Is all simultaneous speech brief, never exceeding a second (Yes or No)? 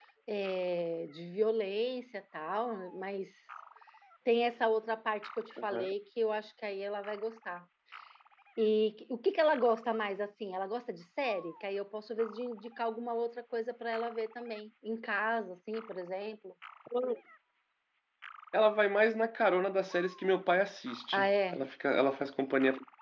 Yes